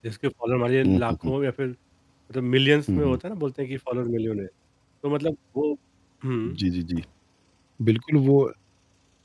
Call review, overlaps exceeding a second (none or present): none